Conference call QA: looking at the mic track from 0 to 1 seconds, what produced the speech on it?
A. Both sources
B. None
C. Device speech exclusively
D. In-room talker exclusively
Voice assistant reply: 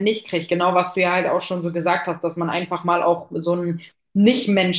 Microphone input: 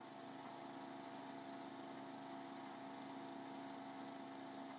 B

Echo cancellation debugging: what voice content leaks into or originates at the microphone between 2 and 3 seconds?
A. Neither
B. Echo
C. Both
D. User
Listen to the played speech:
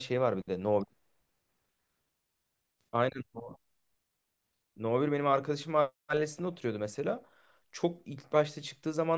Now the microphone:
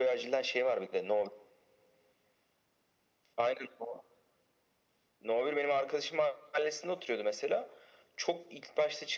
A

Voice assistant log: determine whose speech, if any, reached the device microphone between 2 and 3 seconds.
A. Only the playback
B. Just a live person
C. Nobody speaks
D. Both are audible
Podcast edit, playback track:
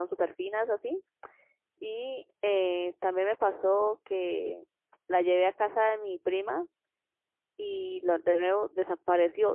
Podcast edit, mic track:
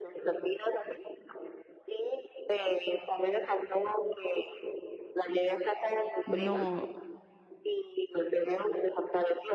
A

